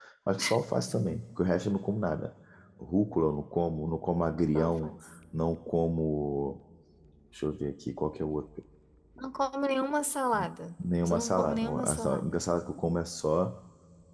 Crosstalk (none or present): present